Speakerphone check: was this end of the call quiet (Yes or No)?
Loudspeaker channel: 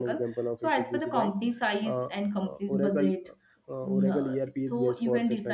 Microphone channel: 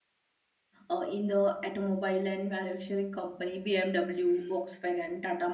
No